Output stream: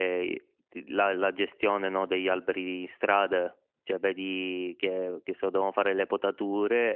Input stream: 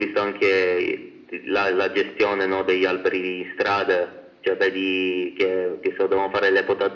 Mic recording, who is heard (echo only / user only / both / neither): echo only